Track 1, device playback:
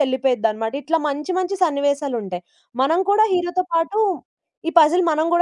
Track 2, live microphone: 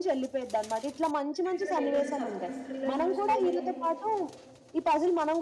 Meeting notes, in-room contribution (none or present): present